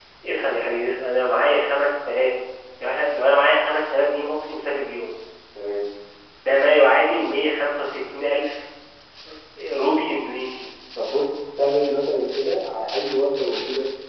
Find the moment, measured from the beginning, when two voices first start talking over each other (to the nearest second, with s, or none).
none